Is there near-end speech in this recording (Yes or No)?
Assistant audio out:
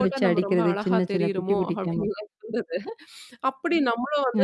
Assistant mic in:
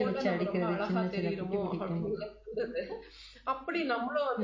No